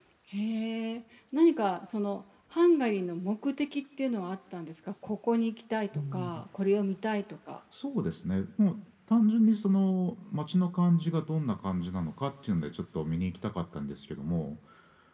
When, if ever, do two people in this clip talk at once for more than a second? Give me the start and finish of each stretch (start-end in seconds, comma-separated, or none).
none